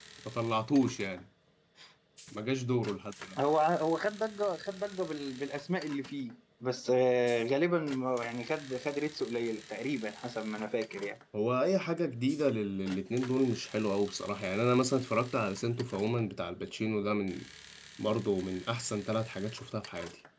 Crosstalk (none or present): none